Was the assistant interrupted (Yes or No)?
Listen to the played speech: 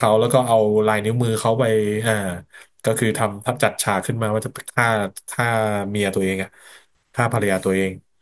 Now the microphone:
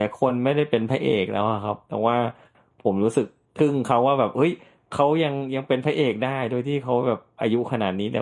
Yes